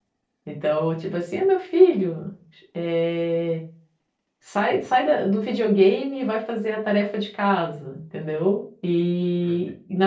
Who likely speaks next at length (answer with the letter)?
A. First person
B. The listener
A